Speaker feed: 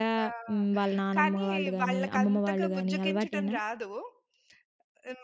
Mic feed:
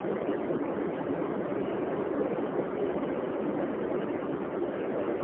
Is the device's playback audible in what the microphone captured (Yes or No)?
No